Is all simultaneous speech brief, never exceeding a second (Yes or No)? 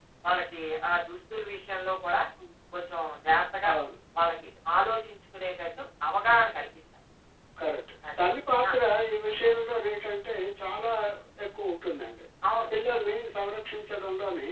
Yes